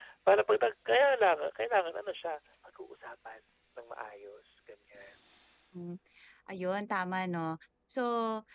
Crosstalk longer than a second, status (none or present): none